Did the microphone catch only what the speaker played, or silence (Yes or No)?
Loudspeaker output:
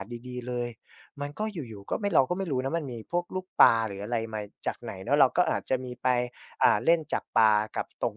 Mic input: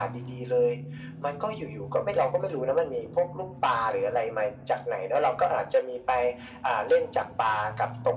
Yes